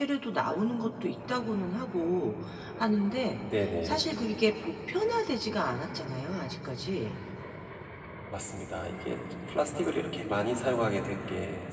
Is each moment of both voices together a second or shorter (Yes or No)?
Yes